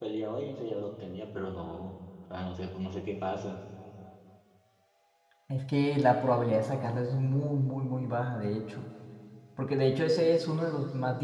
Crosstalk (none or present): none